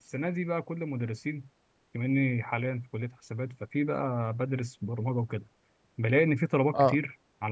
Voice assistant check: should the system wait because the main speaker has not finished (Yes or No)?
Yes